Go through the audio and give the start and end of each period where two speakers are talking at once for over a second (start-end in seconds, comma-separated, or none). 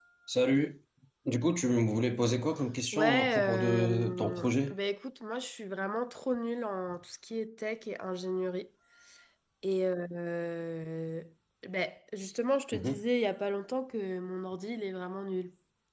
2.9-4.7